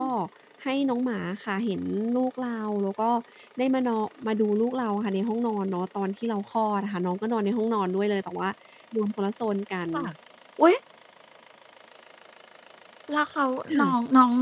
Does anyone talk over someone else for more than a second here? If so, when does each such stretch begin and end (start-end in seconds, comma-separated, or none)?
none